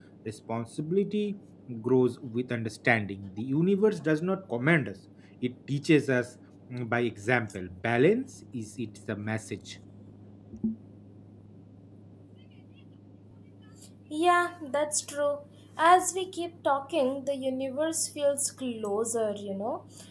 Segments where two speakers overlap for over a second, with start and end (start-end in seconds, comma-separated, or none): none